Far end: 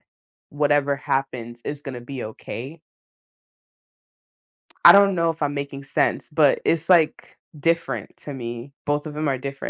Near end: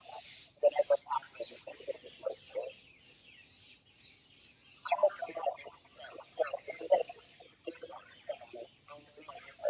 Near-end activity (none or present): none